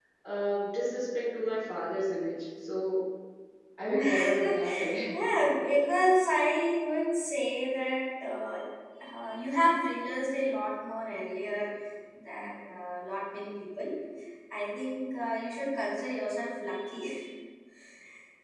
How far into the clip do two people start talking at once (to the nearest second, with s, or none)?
4 s